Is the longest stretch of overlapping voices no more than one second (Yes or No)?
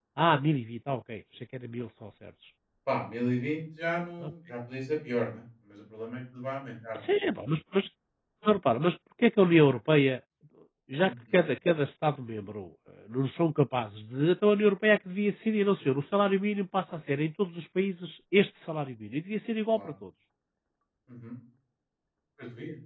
Yes